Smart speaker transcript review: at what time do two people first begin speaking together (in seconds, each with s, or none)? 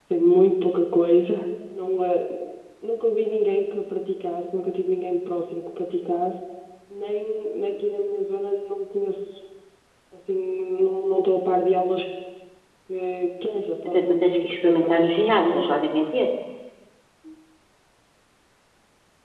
13.8 s